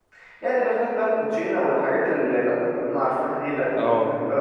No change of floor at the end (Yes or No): Yes